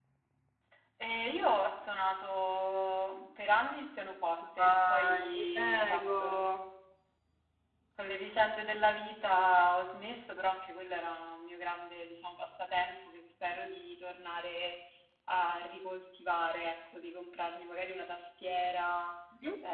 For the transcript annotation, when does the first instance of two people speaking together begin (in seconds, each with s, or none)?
4.6 s